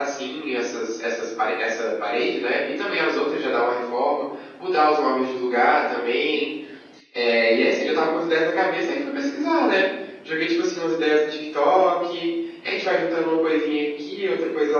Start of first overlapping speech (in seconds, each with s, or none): none